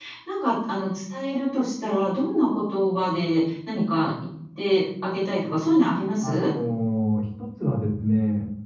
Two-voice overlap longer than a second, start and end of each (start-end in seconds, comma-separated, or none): none